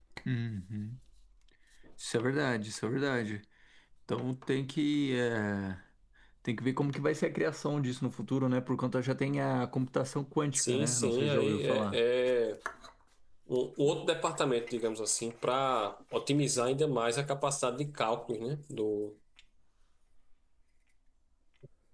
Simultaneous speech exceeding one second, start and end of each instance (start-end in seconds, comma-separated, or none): 10.5-12.0